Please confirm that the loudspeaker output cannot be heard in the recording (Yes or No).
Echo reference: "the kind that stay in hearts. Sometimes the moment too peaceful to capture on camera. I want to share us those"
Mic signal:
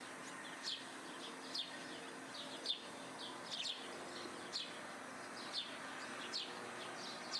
Yes